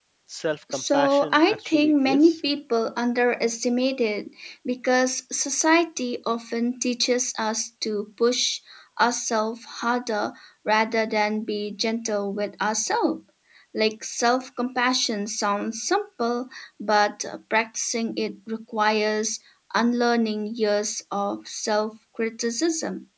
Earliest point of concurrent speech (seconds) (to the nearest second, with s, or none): 1 s